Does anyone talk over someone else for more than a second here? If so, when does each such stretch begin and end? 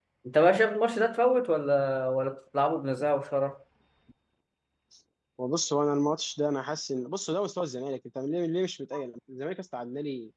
none

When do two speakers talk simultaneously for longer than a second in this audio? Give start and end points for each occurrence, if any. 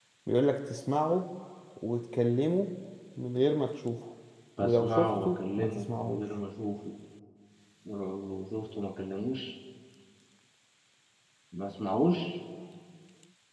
4.6-6.2

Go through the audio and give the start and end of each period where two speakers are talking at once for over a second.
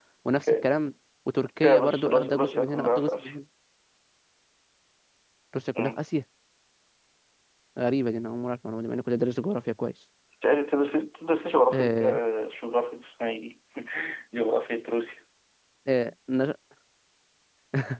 1.6-3.3

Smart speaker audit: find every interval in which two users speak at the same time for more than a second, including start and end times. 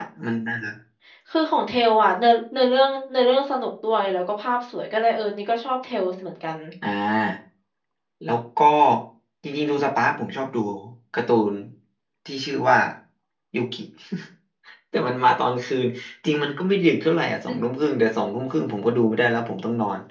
none

